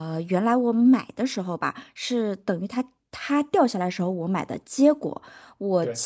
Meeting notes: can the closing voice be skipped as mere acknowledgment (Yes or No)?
Yes